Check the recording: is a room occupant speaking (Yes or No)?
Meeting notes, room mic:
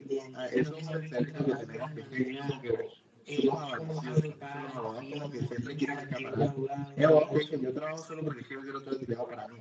No